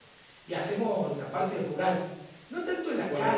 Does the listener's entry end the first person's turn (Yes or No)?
No